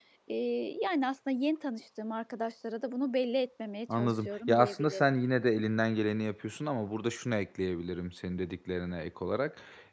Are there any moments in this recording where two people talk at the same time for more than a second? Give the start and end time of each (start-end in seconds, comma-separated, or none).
3.9-5.1